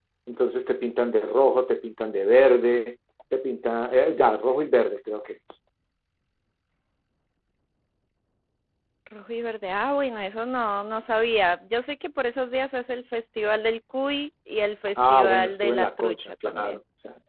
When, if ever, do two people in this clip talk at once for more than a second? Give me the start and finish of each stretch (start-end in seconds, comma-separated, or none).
15.0-16.8